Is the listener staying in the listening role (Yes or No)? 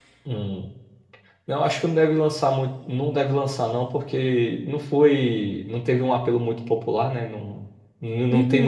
Yes